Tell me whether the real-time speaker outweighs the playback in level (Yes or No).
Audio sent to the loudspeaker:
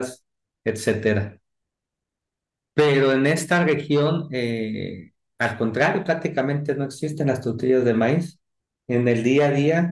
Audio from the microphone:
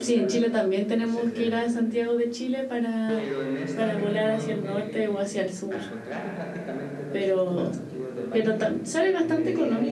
Yes